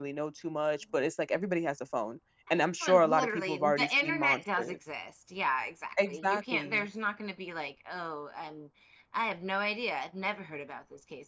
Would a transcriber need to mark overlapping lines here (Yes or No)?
Yes